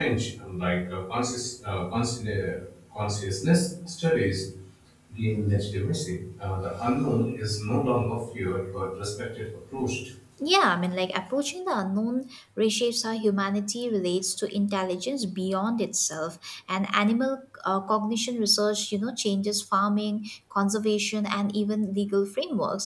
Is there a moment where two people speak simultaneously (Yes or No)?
No